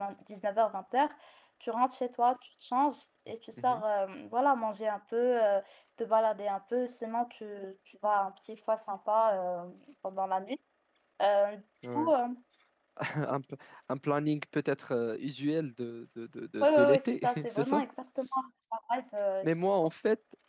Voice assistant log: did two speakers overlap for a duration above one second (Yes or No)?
Yes